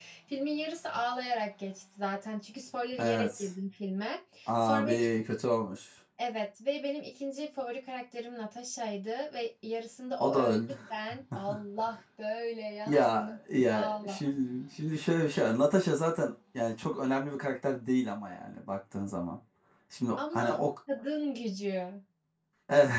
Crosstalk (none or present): present